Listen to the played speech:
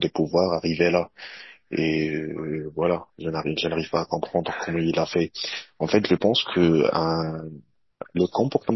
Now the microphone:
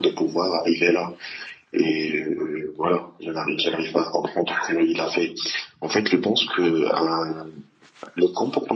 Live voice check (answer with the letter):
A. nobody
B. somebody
A